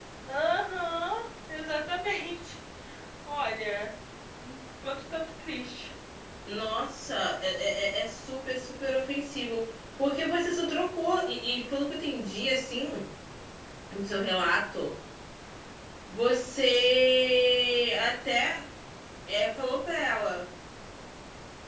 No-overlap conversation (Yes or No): Yes